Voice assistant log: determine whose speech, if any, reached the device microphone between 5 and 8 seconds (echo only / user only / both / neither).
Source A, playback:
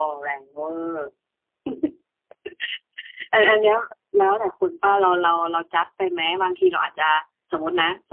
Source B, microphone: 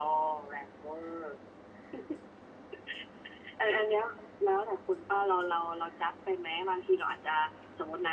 echo only